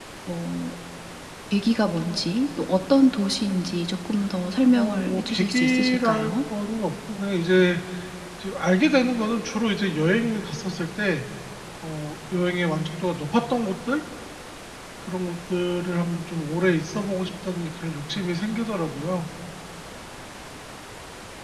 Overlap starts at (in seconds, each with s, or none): 4.7 s